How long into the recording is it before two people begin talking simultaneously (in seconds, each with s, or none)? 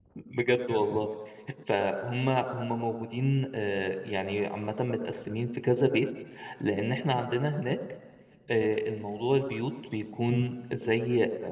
none